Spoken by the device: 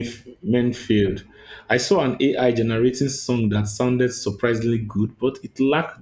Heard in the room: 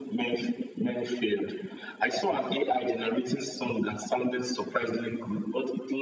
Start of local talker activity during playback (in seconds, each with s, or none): none